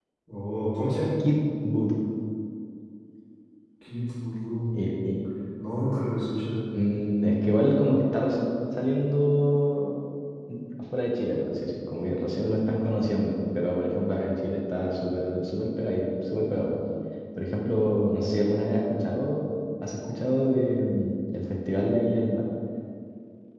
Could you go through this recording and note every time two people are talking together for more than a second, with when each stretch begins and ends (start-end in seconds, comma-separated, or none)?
none